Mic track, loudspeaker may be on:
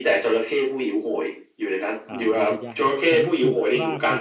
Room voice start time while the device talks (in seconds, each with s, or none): 2.1 s